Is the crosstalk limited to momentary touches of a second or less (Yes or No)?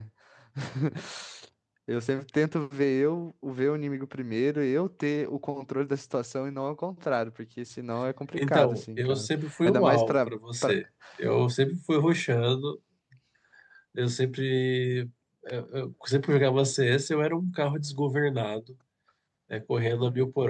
No